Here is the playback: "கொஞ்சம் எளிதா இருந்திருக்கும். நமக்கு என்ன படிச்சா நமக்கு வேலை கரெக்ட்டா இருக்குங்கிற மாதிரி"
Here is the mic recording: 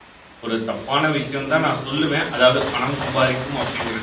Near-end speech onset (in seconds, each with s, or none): 0.4 s